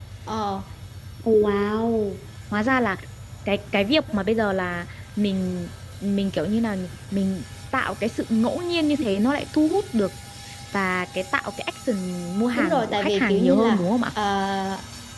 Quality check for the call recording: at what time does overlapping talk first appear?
13 s

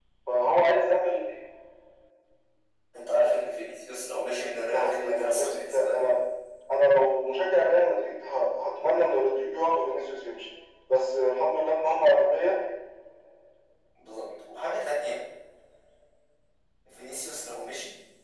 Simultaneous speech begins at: 5 s

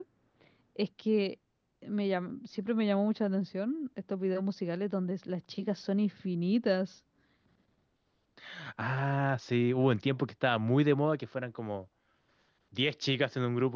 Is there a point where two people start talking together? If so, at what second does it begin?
none

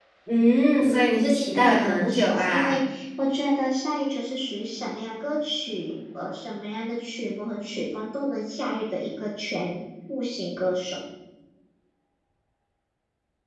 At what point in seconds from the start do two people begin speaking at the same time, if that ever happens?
1 s

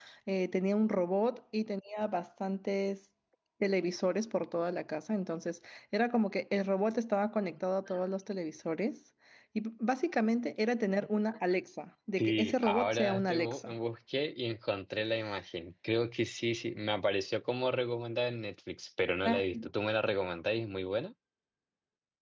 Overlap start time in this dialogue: 12 s

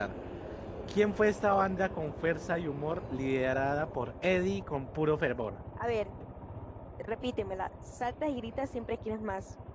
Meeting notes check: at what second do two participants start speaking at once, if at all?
none

